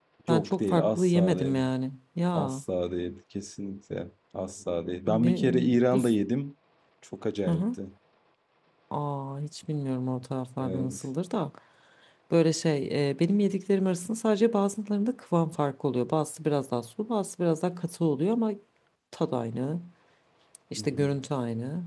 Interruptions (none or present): present